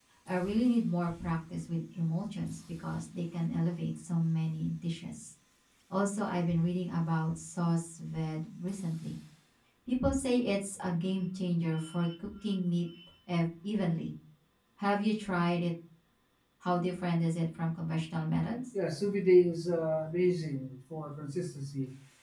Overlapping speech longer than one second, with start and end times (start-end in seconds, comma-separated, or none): none